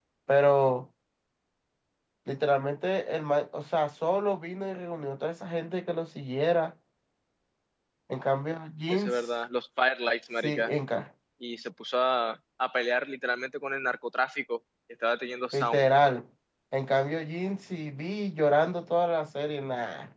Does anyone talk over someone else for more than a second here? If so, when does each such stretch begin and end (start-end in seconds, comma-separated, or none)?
none